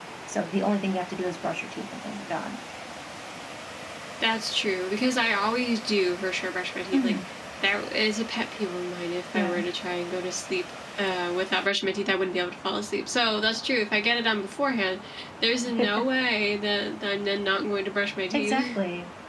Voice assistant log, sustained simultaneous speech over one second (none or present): none